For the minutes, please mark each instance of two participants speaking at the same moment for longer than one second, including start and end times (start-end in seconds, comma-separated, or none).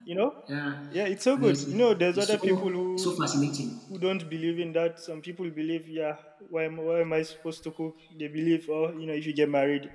1.4-3.2